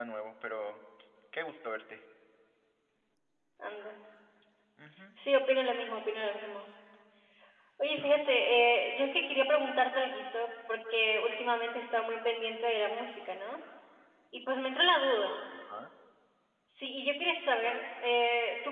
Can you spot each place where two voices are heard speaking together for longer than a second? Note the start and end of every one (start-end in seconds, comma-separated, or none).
none